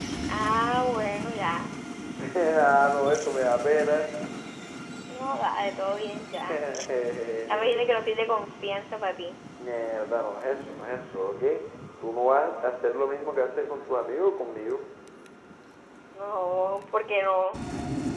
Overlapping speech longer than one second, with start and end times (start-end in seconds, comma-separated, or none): none